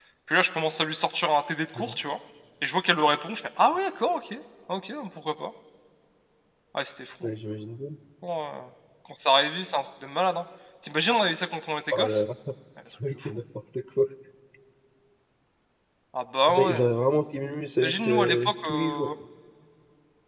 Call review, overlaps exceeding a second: present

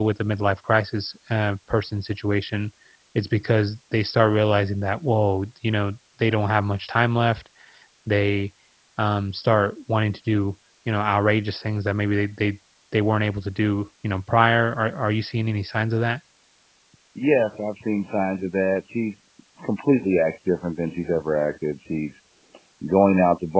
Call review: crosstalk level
none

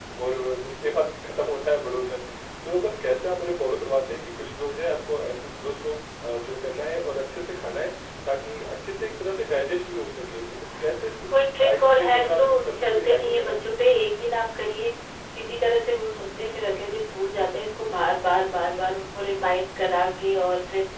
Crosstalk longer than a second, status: present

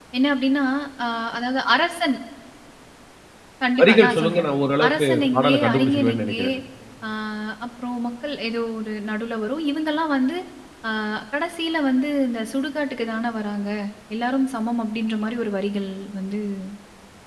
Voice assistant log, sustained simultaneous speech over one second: present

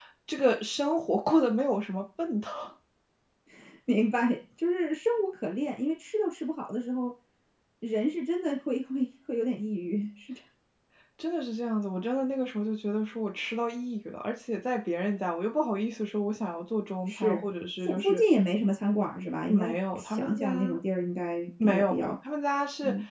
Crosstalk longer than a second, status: present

